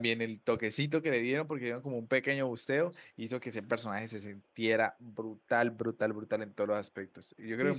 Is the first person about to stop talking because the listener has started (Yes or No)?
Yes